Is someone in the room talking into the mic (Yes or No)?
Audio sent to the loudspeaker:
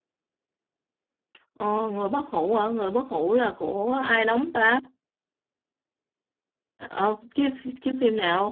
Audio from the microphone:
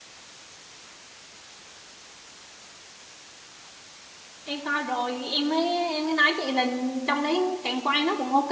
Yes